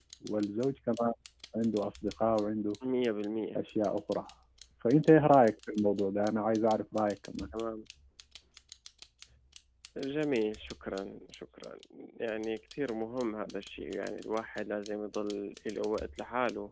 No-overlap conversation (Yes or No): Yes